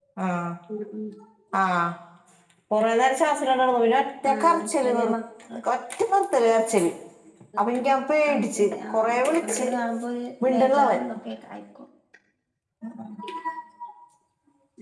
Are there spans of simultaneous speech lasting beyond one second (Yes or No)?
Yes